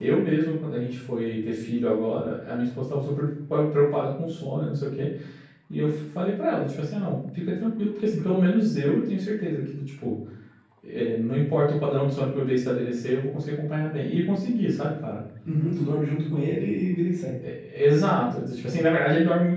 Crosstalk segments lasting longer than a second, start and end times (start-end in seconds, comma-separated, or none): none